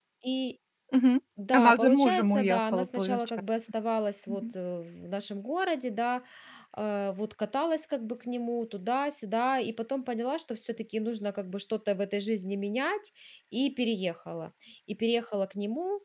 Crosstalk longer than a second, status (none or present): present